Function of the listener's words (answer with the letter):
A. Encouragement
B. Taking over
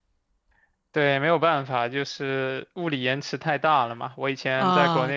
A